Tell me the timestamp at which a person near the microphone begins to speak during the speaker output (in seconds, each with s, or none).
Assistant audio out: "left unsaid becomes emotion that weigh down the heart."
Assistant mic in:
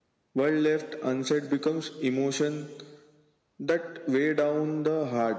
none